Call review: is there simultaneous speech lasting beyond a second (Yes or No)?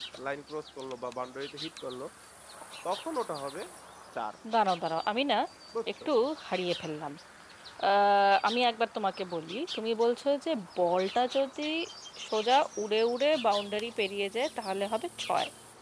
No